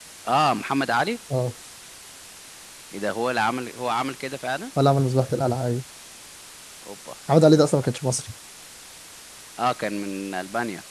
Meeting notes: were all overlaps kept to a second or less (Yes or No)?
Yes